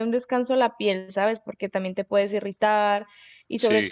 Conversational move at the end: listening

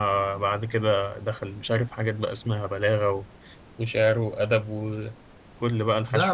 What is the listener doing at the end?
taking over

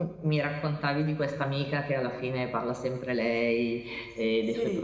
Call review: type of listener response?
listening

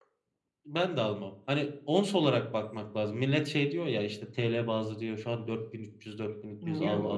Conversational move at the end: taking over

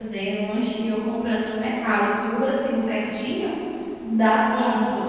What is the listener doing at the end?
taking over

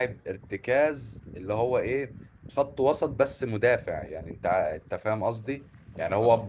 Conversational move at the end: listening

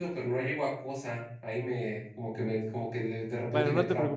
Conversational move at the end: taking over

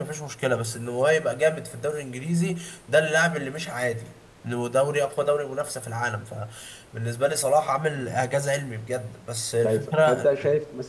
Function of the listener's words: taking over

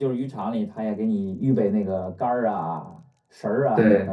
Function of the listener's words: listening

